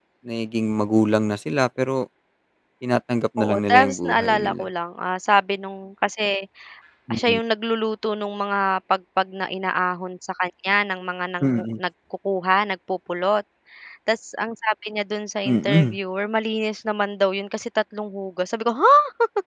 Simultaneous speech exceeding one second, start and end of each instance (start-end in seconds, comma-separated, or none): 3.4-4.6